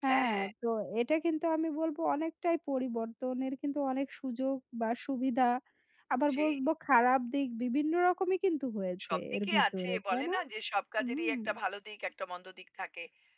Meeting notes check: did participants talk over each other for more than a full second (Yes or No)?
Yes